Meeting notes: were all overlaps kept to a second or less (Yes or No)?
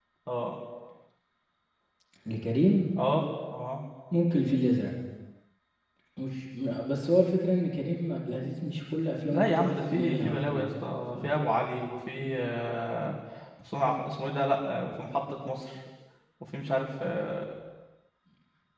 No